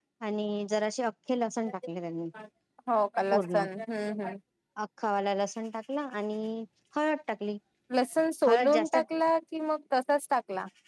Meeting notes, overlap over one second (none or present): none